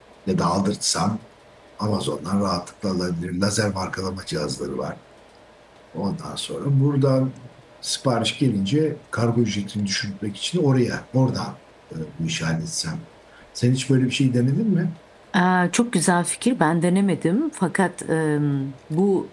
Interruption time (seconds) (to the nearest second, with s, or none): none